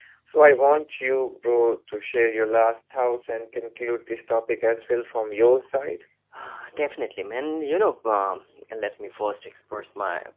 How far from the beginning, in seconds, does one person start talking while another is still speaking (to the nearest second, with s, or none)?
none